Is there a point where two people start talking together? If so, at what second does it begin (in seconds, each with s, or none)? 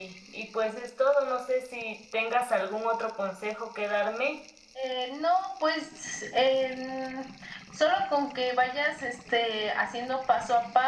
none